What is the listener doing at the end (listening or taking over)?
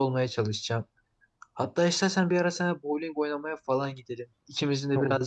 listening